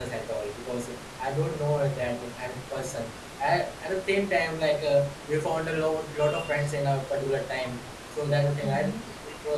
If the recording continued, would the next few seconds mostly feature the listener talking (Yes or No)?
No